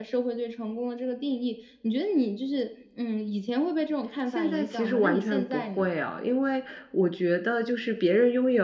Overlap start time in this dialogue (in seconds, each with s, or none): 4.3 s